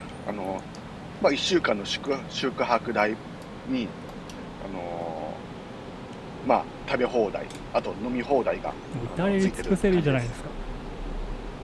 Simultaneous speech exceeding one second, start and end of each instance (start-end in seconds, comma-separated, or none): 9.1-10.3